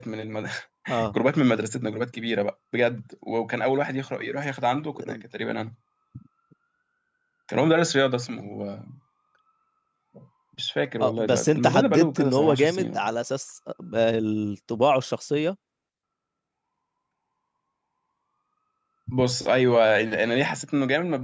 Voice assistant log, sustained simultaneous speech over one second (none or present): present